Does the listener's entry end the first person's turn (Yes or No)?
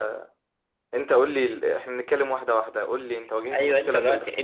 Yes